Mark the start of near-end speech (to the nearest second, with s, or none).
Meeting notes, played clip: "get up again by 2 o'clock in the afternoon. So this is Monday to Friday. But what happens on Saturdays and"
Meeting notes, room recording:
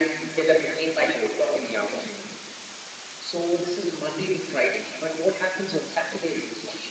none